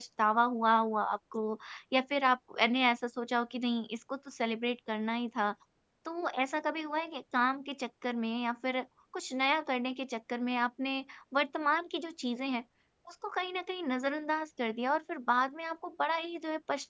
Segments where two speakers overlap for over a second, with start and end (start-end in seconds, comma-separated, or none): none